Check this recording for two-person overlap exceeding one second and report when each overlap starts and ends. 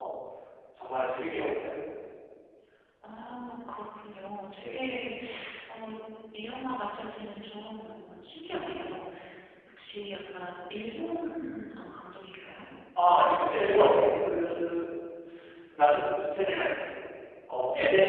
none

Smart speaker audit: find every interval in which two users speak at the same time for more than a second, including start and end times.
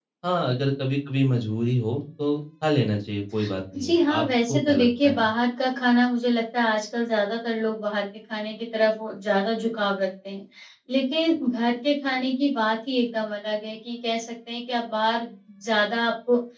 3.8-5.3

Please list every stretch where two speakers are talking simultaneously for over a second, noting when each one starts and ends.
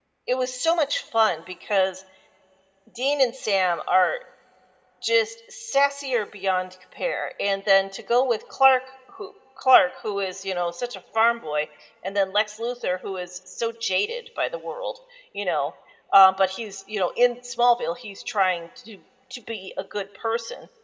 none

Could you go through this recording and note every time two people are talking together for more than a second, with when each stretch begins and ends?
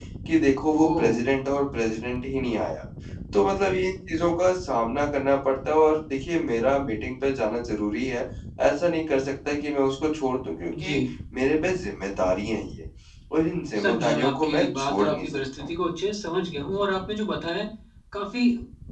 13.8-15.7

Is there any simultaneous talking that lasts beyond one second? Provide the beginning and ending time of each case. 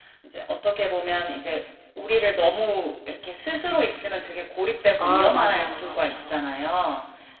5.0-6.4

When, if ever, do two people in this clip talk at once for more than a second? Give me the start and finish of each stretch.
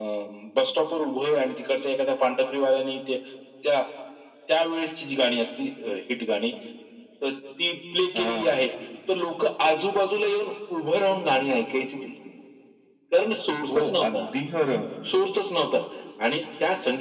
none

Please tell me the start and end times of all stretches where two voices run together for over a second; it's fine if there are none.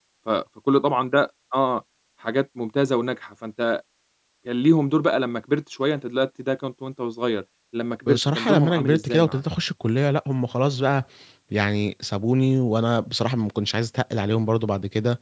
8.1-9.4

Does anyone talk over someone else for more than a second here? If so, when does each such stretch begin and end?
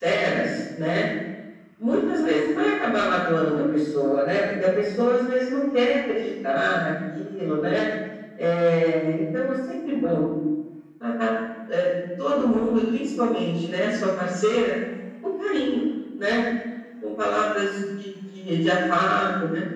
none

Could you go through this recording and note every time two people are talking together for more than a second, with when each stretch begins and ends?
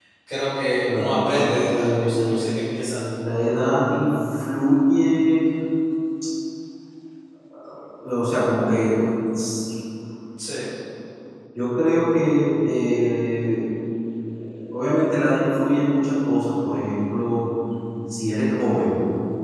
0.9-2.4

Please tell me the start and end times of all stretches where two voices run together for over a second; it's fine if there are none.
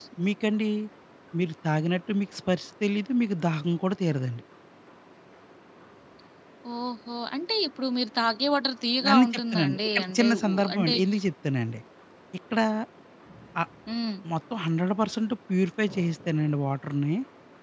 9.1-10.9

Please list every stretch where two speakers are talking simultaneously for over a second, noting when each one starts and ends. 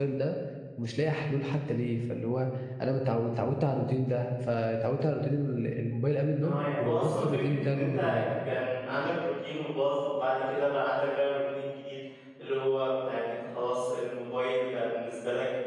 6.4-8.2

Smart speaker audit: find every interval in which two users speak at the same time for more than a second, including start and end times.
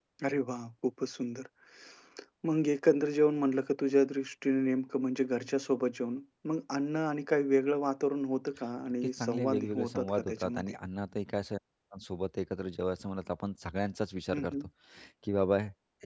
9.2-10.8

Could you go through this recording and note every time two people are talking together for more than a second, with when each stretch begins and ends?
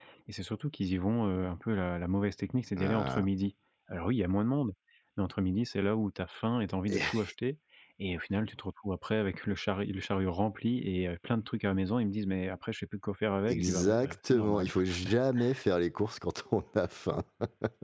13.5-14.7

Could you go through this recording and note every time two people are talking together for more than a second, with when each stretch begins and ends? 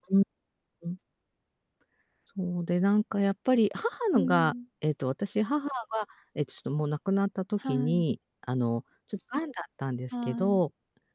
none

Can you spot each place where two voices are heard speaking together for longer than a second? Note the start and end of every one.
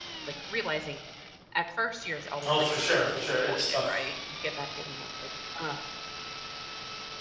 2.4-4.0

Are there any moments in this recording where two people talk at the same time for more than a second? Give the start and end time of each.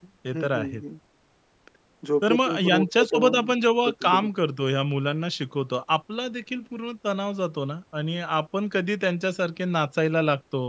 2.2-3.5

